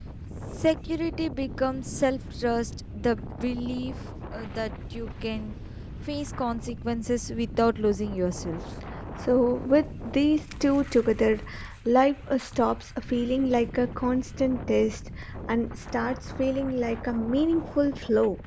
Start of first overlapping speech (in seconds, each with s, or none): none